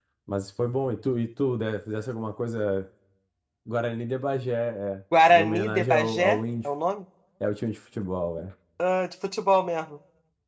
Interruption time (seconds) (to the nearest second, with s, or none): 5 s